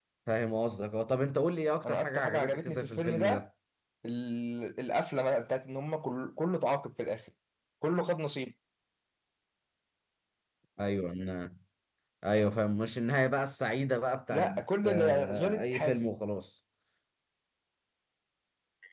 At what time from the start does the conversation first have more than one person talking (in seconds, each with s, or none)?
1.8 s